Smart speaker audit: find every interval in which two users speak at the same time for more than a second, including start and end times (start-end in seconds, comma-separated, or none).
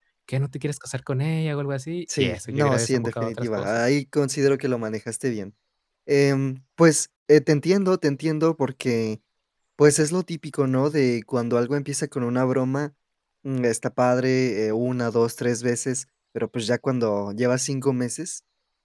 2.2-3.8